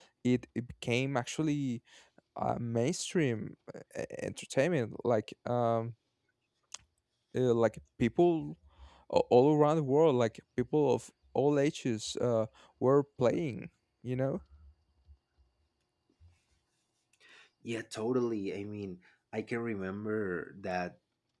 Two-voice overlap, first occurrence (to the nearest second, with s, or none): none